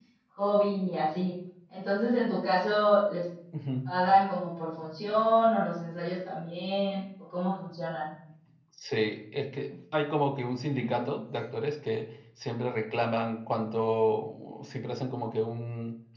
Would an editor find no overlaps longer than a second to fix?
Yes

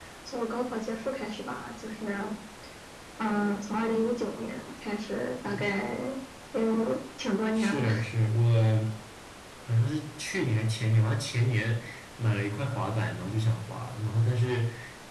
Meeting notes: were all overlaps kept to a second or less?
Yes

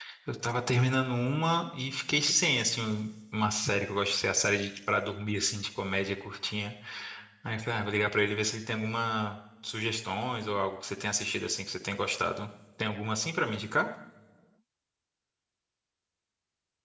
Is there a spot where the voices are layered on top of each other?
No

